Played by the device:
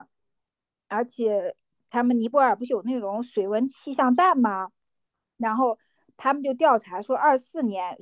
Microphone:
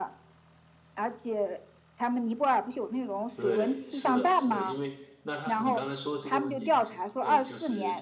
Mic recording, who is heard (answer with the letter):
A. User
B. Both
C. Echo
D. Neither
B